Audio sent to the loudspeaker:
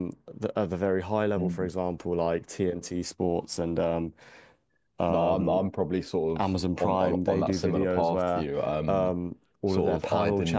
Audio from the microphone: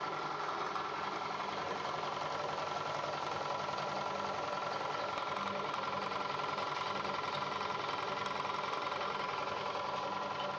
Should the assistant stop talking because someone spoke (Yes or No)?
No